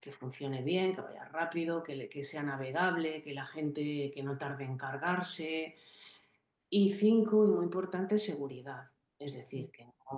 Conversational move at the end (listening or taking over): listening